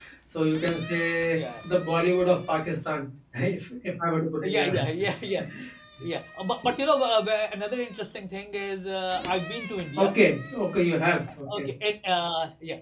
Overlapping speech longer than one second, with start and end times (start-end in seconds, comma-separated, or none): none